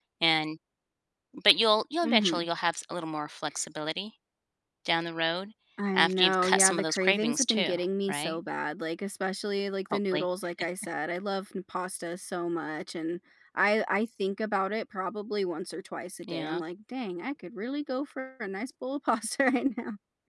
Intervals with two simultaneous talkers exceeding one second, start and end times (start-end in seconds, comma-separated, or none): 5.9-7.7